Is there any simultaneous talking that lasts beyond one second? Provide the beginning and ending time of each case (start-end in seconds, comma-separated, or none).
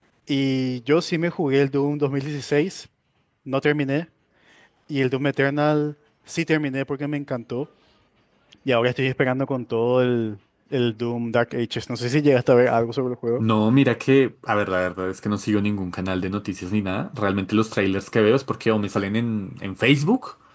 none